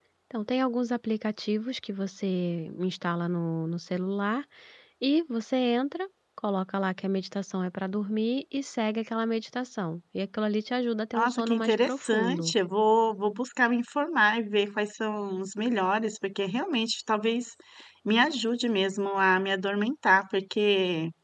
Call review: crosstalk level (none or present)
present